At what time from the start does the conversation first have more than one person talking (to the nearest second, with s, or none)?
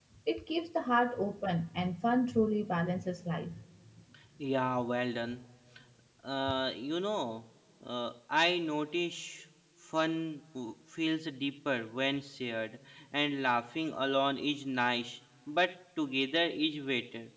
none